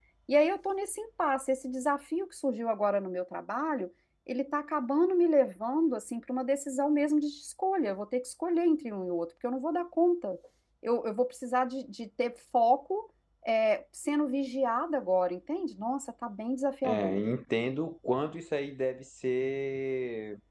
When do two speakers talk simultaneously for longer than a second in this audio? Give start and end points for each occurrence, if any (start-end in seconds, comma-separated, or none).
none